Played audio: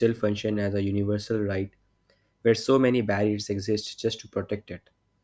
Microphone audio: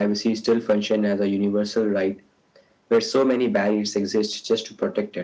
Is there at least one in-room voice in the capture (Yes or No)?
No